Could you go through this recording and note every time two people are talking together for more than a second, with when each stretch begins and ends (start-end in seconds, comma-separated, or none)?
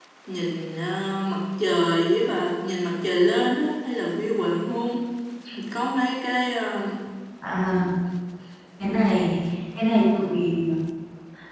none